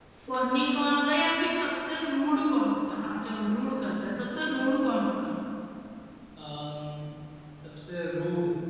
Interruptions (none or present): none